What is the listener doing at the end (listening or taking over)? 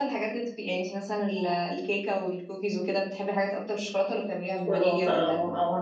taking over